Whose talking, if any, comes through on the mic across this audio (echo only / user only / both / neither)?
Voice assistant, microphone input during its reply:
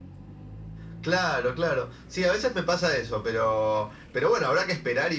echo only